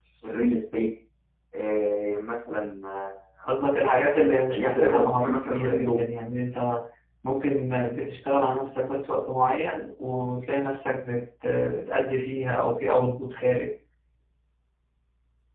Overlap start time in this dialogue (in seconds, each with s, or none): 4.5 s